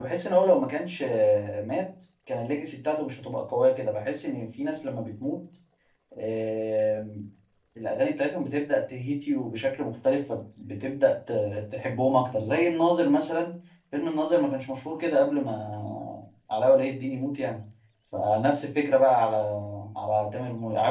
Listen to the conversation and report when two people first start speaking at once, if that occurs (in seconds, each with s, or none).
none